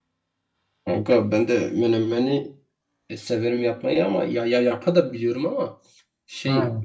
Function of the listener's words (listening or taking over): listening